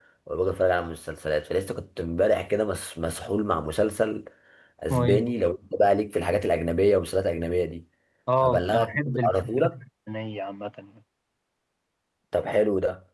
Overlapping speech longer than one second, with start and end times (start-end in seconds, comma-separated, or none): 8.4-9.7